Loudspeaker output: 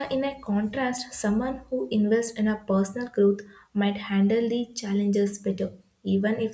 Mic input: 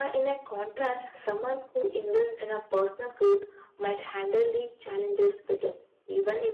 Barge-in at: none

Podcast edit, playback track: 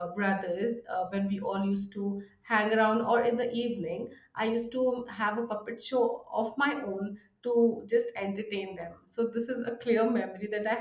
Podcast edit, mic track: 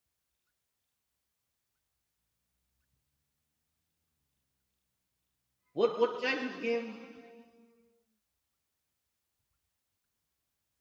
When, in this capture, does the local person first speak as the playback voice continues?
5.7 s

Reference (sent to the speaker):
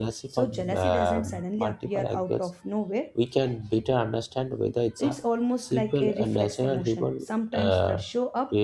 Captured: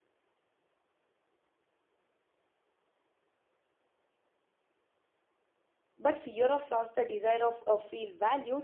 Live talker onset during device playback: 6.0 s

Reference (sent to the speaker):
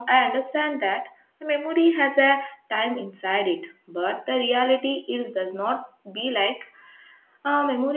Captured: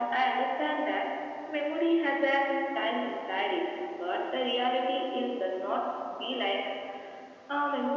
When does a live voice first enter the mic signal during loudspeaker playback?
none

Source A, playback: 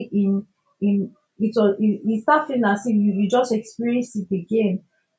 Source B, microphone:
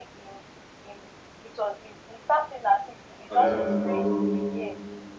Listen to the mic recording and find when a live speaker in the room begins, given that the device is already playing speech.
3.3 s

